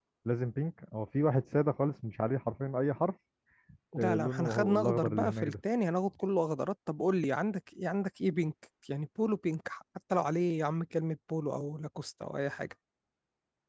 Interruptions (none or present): present